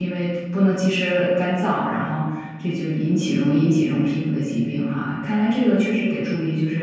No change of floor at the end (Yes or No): Yes